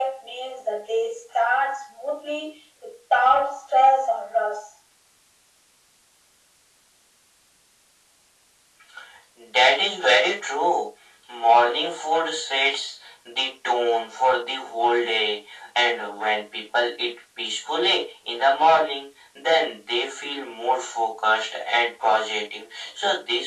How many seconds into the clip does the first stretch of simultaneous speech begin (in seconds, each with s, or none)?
none